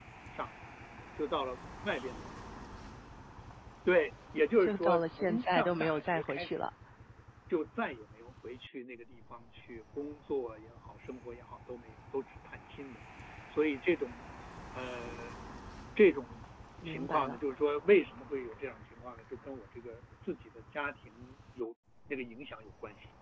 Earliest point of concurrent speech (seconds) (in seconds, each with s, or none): 4.6 s